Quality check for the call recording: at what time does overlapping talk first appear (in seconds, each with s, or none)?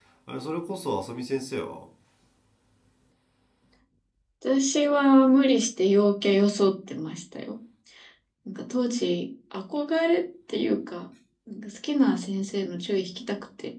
none